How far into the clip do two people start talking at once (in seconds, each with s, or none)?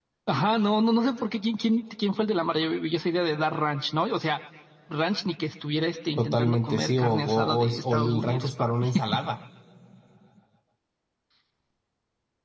6.2 s